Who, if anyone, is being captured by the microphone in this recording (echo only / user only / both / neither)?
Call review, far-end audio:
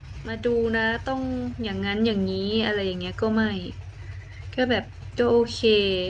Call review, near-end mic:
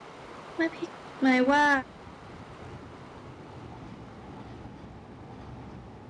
user only